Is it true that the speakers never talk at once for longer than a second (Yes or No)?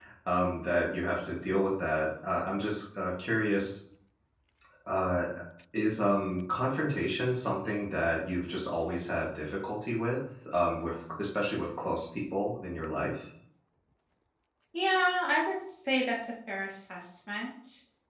Yes